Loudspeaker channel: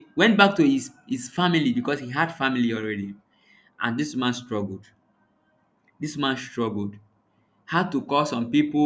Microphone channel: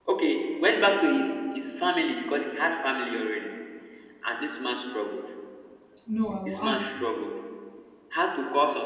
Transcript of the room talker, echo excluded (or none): No, I will ask.